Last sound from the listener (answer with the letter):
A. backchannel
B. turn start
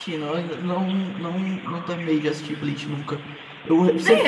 A